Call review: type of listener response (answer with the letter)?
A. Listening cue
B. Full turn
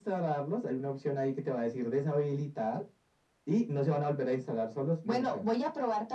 B